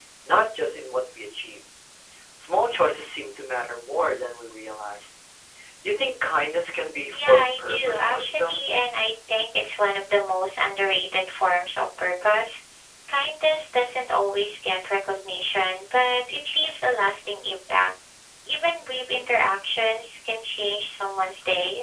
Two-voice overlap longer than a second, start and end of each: 7.1-8.6

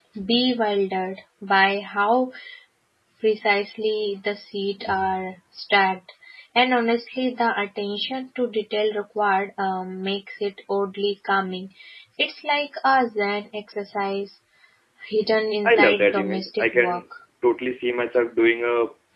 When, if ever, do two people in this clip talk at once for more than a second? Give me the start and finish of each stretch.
15.7-17.0

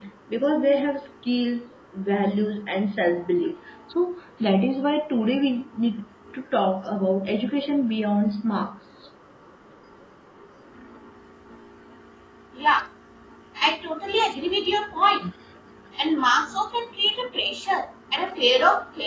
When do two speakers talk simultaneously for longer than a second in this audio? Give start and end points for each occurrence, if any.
none

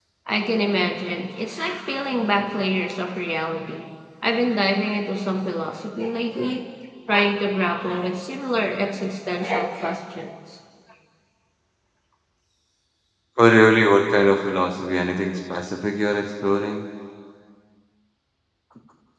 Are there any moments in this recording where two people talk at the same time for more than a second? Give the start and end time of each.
none

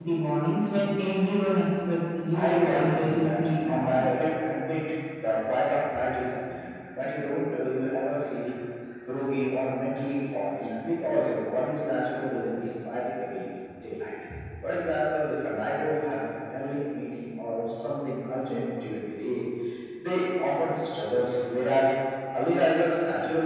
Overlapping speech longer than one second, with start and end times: 2.3-4.0

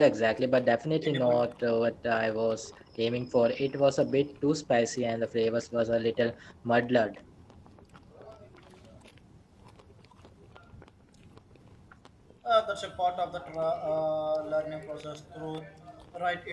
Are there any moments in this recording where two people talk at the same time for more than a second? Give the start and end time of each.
none

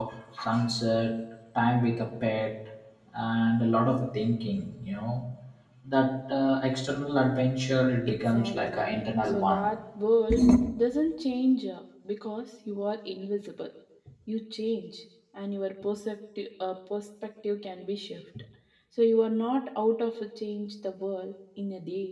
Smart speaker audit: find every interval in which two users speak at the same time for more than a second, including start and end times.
8.1-9.7

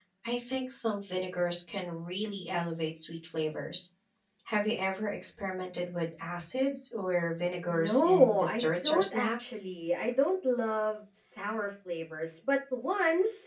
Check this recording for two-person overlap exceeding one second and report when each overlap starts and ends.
7.7-9.6

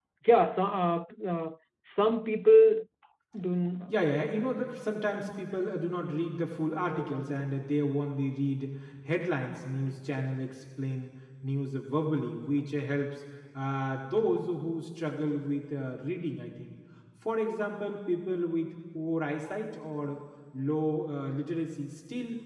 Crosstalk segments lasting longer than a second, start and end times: none

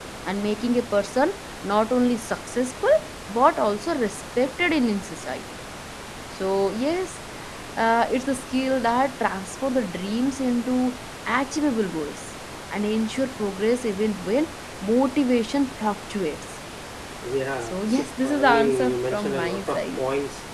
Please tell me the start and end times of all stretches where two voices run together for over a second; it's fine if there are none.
17.6-20.0

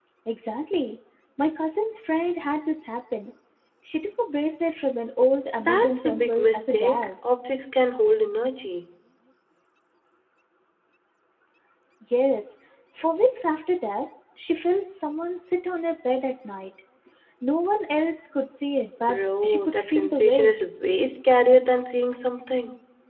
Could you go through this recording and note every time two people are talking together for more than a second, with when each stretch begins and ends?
5.6-7.1, 19.1-20.5

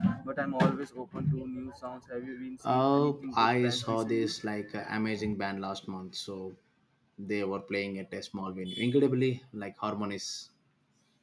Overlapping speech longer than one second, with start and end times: 2.6-4.3

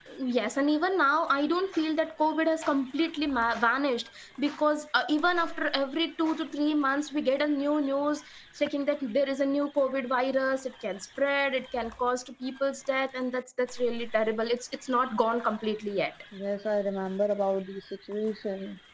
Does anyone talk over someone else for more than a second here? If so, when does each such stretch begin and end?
none

